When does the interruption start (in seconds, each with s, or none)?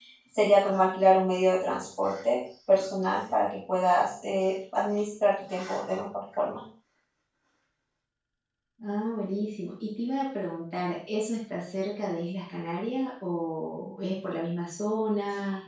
none